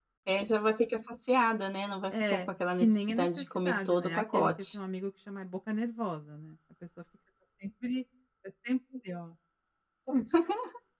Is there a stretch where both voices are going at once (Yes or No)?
Yes